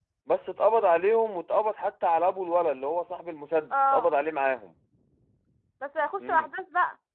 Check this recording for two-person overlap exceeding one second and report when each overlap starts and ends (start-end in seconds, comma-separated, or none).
none